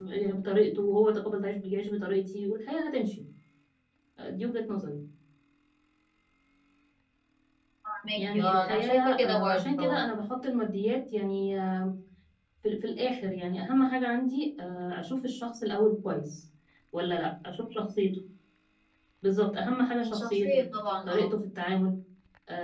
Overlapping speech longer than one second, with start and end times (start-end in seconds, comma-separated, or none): 8.2-10.0